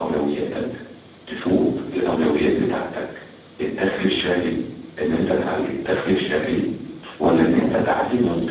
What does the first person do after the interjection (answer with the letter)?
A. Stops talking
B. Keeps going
B